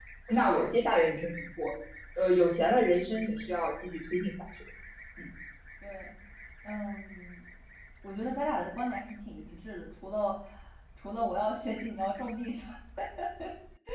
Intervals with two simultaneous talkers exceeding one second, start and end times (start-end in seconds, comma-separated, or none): none